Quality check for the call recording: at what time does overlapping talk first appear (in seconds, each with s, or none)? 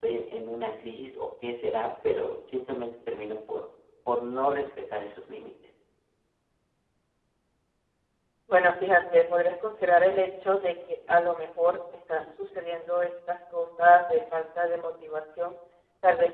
none